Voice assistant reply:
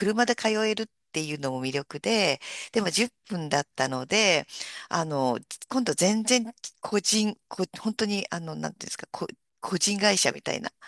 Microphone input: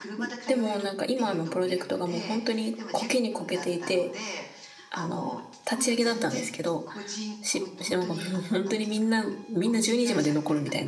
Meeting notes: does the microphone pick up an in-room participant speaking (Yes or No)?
Yes